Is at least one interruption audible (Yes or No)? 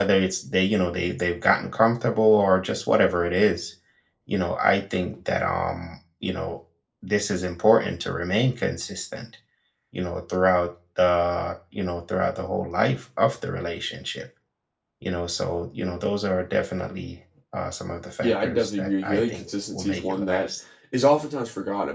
Yes